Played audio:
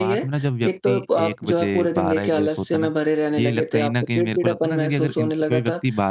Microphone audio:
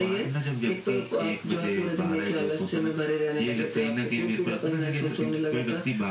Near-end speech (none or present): none